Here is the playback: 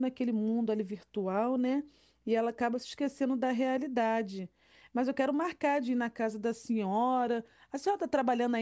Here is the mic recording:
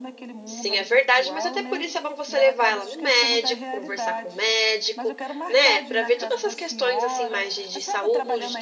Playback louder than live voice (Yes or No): No